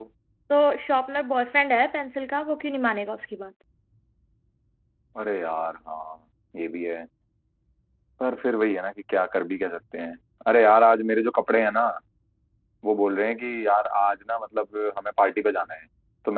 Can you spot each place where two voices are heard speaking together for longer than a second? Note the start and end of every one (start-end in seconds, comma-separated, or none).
none